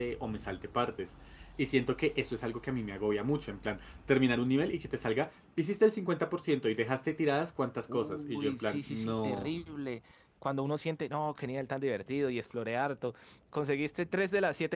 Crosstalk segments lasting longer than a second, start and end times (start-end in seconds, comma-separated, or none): 7.9-9.5